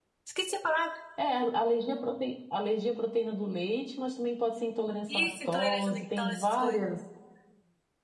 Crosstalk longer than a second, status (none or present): present